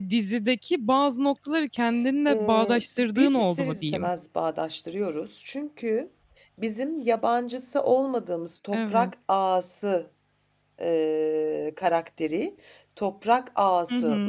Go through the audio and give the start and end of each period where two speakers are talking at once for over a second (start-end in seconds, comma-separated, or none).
2.3-4.1